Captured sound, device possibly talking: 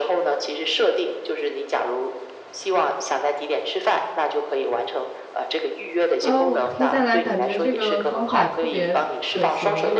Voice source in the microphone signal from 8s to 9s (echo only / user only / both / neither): both